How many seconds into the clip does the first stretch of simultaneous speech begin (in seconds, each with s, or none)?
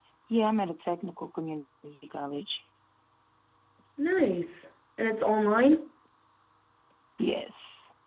none